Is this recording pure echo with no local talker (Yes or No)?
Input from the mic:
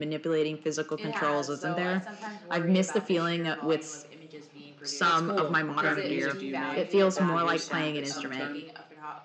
No